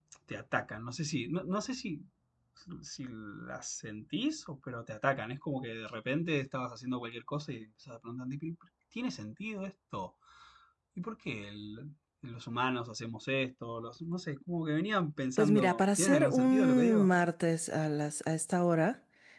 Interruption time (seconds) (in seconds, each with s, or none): 15.4 s